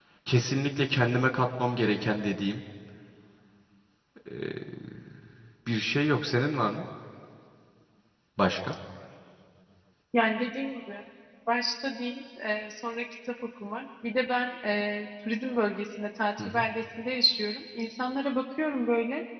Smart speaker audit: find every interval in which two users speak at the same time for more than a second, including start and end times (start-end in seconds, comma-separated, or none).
none